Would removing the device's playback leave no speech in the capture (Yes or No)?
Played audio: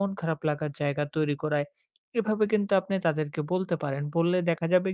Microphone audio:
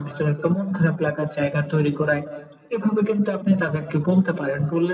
Yes